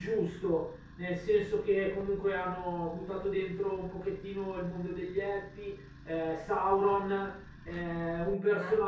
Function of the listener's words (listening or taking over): listening